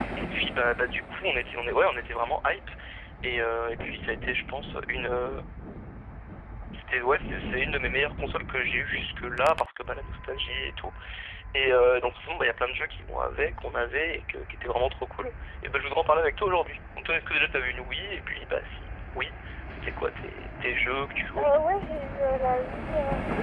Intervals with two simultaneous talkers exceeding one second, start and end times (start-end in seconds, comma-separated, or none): none